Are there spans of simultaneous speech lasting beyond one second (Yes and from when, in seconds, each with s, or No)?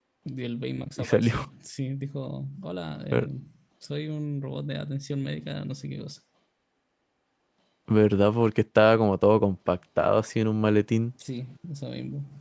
No